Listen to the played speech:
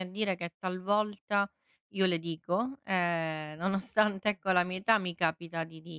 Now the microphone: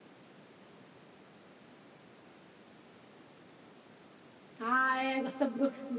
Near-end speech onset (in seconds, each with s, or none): 4.6 s